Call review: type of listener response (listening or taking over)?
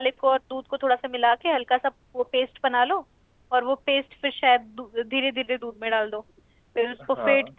listening